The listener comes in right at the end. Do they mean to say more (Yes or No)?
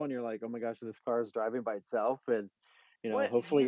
Yes